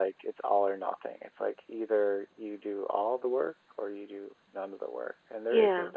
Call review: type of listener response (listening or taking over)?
listening